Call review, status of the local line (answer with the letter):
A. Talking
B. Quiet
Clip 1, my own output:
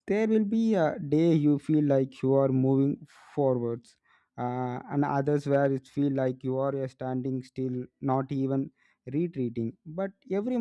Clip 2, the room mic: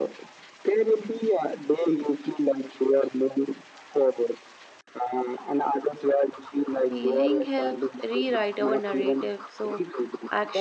A